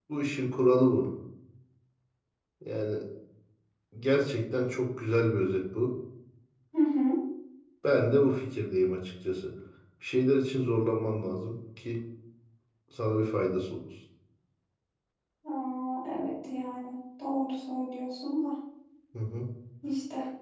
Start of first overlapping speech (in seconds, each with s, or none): none